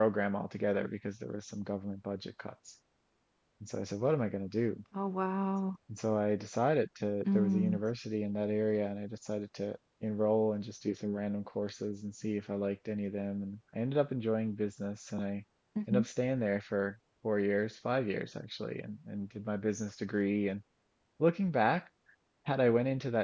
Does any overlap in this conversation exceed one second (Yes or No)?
No